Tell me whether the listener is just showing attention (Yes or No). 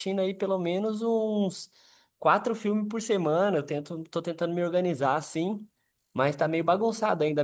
Yes